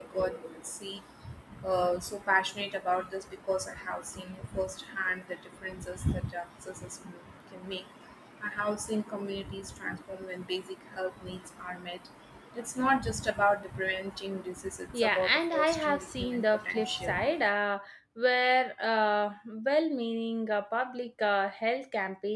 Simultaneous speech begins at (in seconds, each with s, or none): 14.9 s